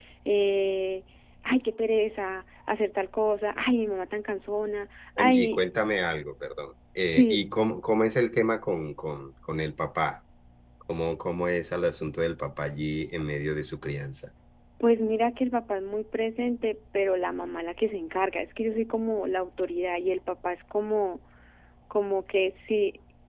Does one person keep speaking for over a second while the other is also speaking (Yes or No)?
No